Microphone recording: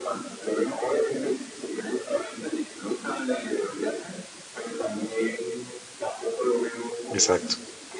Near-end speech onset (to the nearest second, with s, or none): 7 s